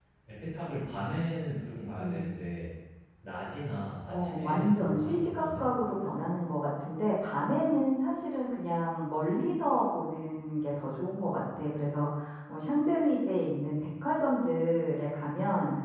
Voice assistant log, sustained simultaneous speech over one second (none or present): present